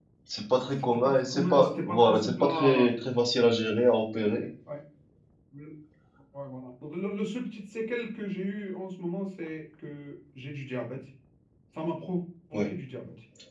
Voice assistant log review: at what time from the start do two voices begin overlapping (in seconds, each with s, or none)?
0.8 s